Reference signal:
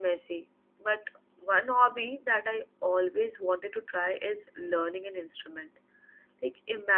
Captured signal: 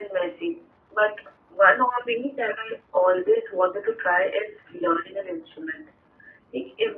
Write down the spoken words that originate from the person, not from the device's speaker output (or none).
none